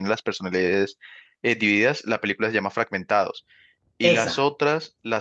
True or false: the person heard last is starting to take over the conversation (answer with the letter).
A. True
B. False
B